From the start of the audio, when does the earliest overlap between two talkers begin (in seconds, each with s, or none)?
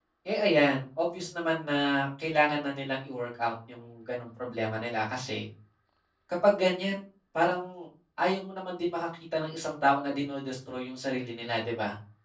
none